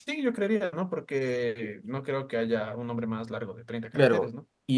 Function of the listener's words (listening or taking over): taking over